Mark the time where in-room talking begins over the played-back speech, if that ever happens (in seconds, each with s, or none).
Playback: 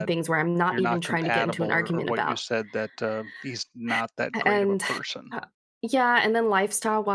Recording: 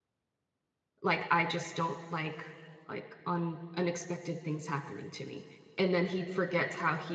1.0 s